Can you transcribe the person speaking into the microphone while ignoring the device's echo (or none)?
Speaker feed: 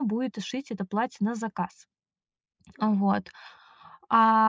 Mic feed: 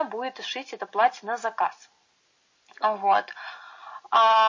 none